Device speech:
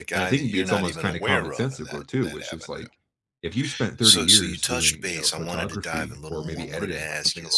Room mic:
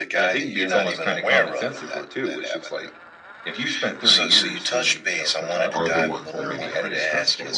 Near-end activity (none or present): present